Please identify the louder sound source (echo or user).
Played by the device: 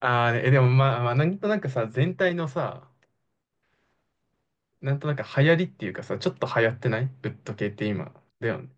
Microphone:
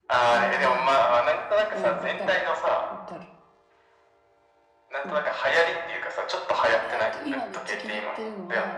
echo